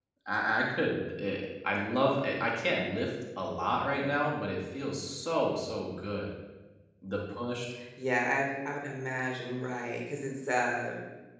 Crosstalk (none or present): none